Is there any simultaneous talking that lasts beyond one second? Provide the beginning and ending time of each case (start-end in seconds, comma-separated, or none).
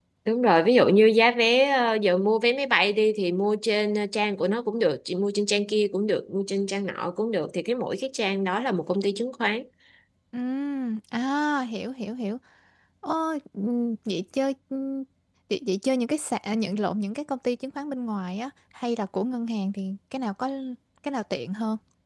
none